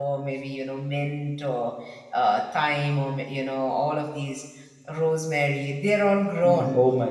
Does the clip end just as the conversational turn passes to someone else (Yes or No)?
Yes